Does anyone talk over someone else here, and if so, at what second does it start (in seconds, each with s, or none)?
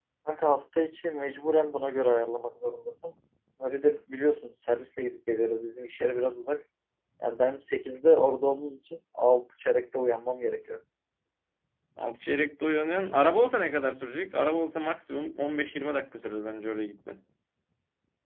none